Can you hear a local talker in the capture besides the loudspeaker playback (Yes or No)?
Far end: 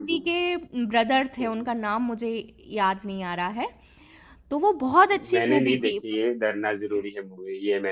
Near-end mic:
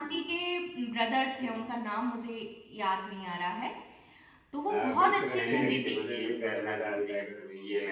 Yes